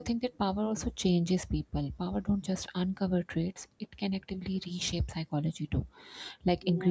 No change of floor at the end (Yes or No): Yes